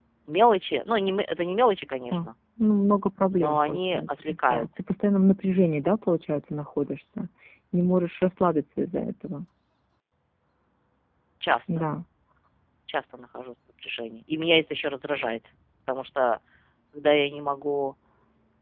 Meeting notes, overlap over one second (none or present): present